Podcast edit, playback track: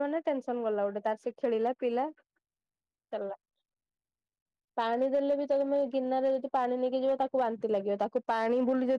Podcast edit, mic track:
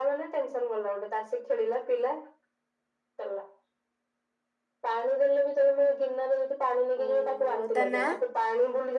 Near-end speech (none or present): present